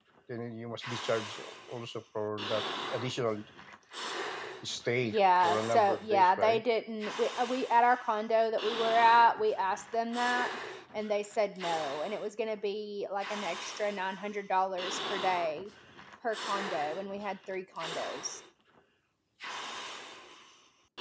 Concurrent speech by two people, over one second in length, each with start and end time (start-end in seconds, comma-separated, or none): 5.0-6.6